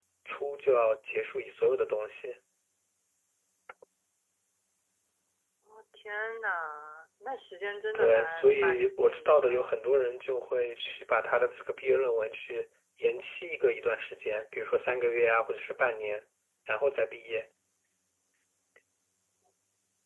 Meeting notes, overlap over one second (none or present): present